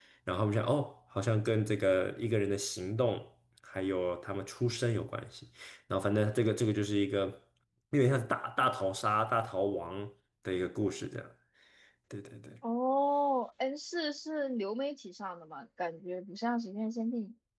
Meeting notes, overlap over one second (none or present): none